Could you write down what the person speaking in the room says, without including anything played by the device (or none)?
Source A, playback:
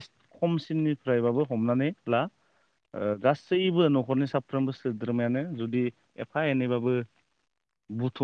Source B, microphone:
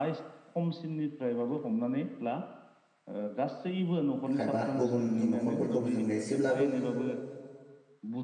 खायबा गुबुननि न'खरफोरखौबो जोङो एसे सेब्लाबो